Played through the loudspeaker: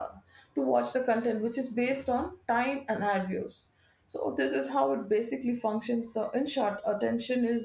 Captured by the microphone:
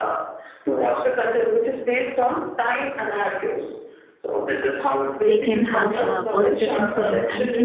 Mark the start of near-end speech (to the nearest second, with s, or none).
5 s